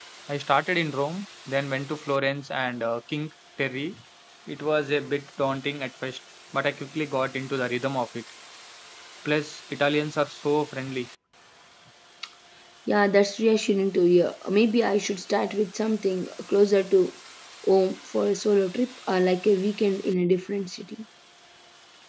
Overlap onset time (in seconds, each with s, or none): none